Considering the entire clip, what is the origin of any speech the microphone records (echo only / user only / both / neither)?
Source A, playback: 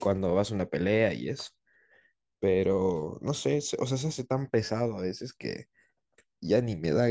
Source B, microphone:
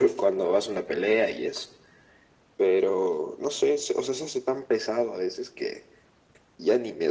echo only